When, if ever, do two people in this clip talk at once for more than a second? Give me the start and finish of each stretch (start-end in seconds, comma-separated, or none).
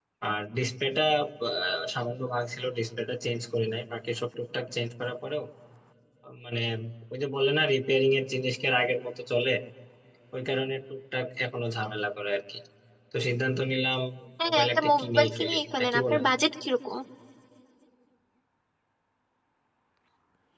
14.4-16.2